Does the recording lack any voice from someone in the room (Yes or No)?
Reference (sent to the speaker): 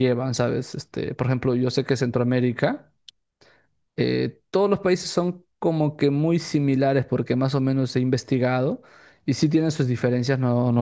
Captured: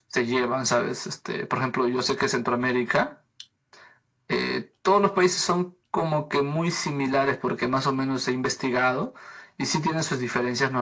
Yes